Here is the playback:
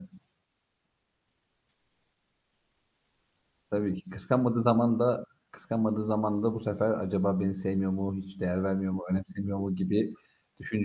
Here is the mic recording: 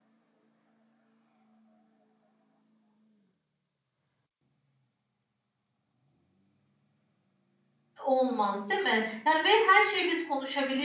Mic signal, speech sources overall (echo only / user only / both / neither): user only